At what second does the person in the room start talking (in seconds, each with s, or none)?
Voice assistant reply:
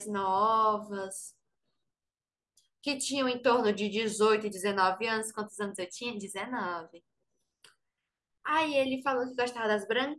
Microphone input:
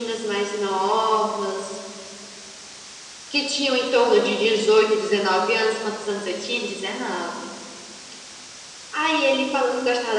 none